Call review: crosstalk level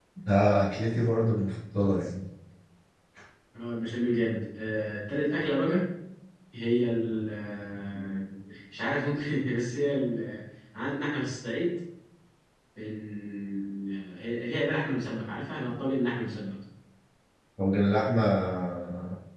none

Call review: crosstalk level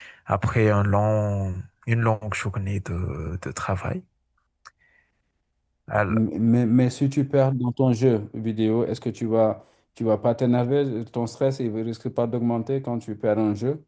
none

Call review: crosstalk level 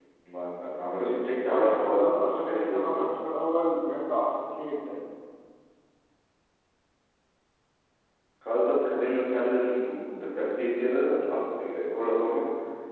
present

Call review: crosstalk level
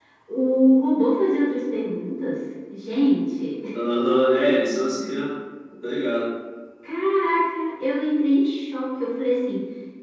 none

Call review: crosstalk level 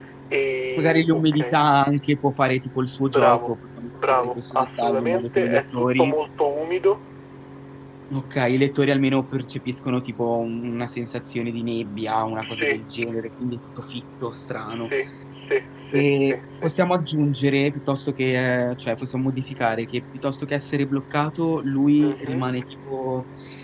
present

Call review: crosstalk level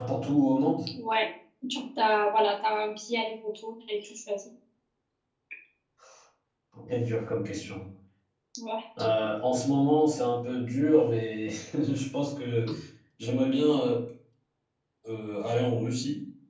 none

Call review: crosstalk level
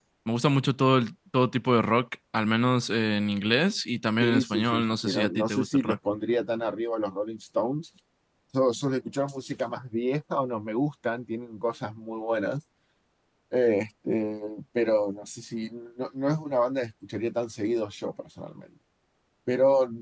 present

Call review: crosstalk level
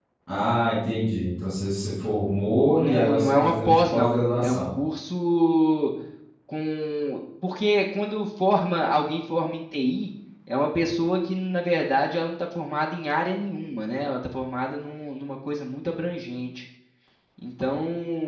present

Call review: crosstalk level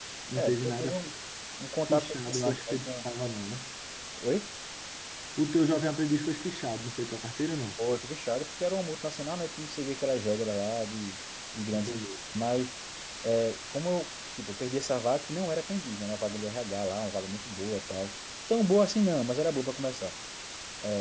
present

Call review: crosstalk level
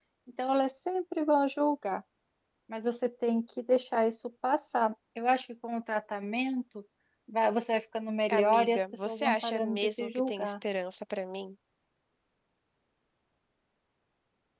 present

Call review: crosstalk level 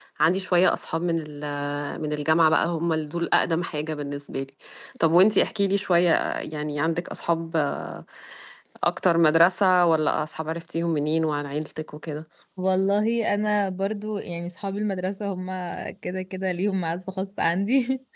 none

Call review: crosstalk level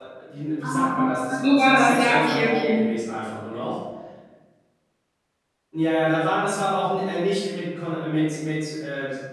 present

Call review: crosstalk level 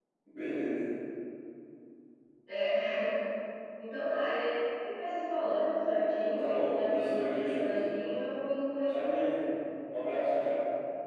present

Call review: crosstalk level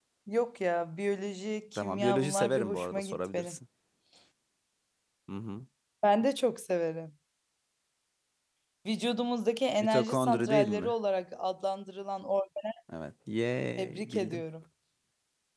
present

